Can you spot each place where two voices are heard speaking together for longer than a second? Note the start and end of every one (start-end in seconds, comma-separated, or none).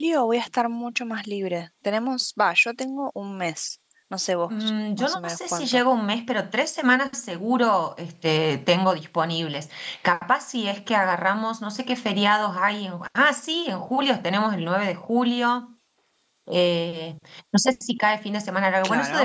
4.5-5.8